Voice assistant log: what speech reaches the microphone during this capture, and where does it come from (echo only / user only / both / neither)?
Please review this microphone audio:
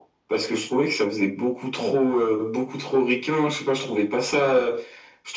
echo only